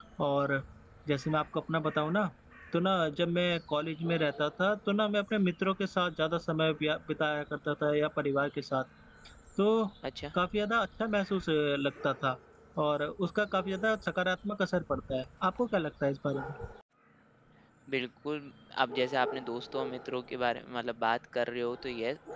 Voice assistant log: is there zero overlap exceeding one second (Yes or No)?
Yes